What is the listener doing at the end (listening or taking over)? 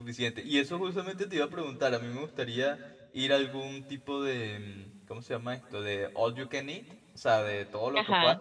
listening